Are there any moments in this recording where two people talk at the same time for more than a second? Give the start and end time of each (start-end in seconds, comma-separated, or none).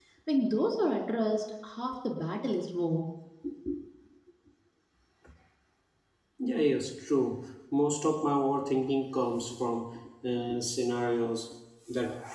none